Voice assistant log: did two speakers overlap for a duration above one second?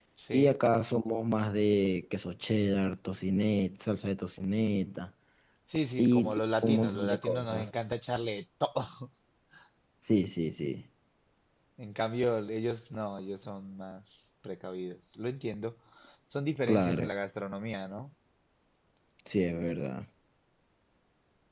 Yes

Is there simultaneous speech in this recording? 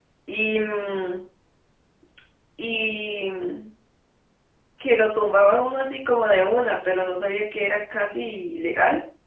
No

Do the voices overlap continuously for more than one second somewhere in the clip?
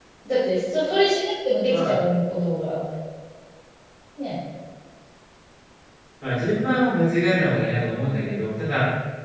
No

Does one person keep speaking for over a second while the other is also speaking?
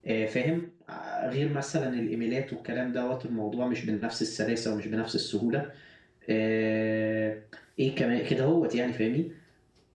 No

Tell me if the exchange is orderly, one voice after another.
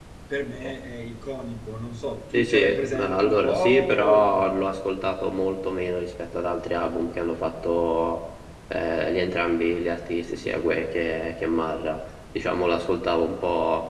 No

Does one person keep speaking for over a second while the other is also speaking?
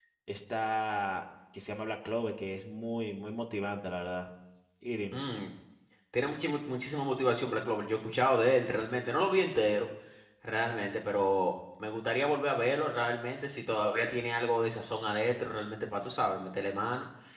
No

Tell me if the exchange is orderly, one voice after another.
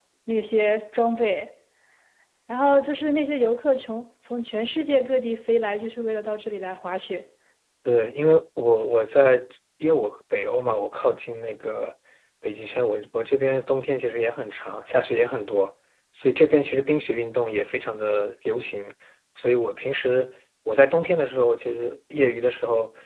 Yes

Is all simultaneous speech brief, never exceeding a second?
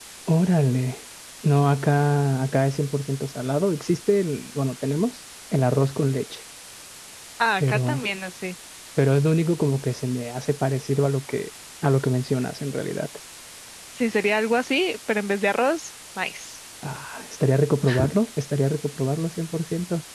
Yes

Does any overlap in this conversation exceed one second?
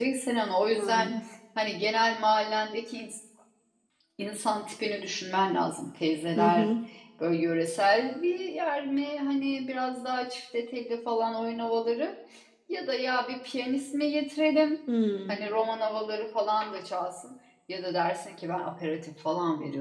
No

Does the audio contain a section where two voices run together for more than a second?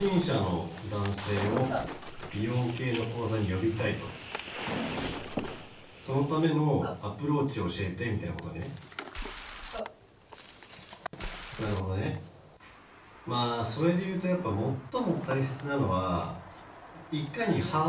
No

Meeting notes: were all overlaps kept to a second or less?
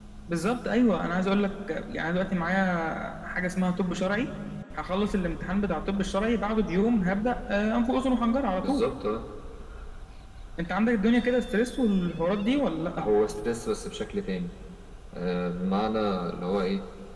Yes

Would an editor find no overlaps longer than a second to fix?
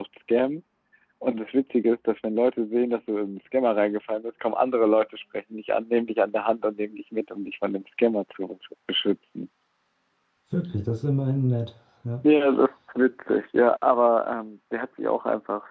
Yes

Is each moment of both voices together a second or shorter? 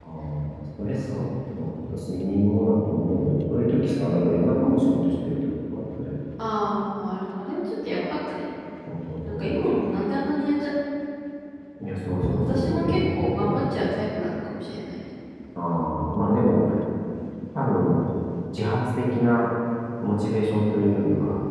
No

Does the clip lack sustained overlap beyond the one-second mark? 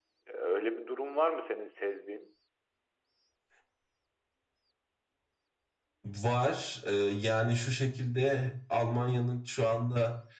Yes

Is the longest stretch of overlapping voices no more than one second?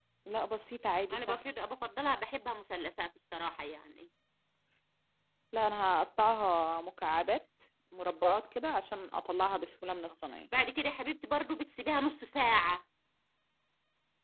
Yes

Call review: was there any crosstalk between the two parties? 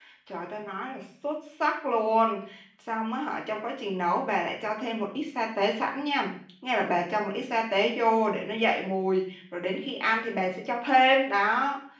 No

